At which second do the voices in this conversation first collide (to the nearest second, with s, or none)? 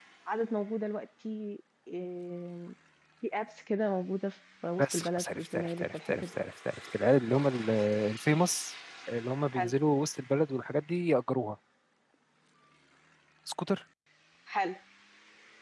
5 s